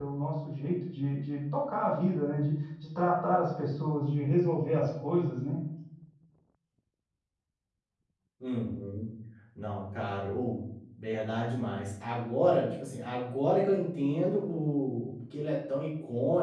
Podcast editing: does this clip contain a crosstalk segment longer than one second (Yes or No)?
No